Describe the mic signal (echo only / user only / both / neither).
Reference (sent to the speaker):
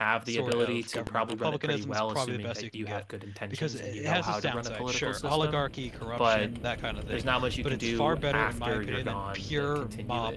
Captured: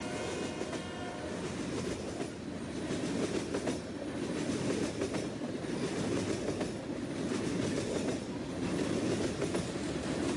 neither